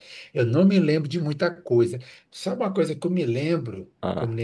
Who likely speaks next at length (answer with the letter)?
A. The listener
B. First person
B